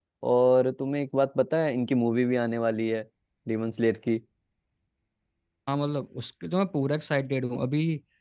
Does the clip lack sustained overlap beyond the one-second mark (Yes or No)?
Yes